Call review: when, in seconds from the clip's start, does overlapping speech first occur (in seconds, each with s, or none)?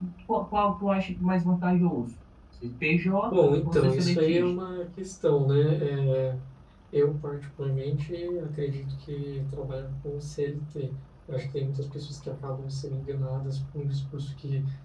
3.3 s